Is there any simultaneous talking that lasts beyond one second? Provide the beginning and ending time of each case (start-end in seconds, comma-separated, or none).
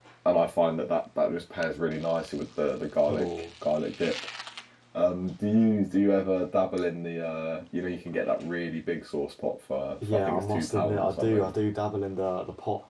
10.0-11.6